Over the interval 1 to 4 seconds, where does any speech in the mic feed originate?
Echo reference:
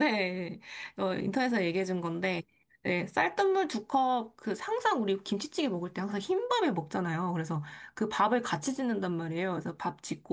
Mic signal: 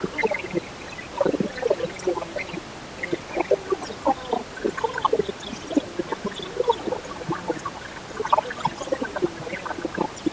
echo only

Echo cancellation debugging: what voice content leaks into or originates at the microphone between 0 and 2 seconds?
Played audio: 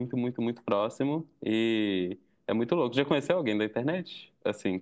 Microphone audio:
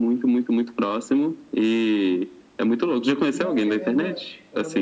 echo only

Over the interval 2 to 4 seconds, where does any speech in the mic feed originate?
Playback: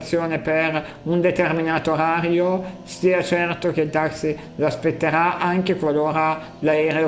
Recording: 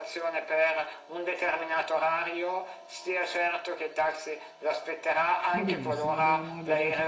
echo only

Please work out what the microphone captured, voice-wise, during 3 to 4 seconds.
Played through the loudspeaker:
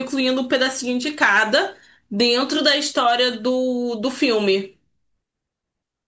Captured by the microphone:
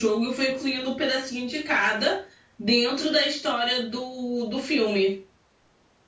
echo only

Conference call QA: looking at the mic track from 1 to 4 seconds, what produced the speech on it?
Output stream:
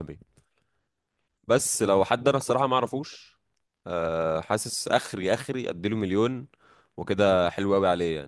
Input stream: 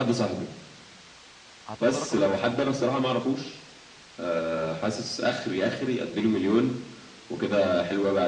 both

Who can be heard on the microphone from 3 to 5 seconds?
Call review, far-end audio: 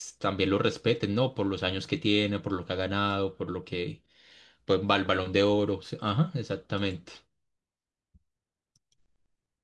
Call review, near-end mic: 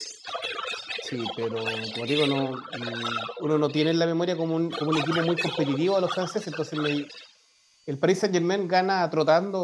both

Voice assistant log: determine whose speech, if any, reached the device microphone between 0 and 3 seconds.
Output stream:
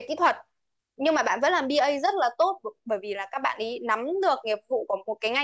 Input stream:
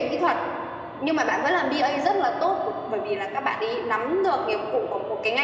echo only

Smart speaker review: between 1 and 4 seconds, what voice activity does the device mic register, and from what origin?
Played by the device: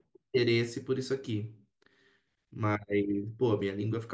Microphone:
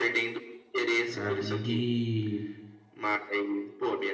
both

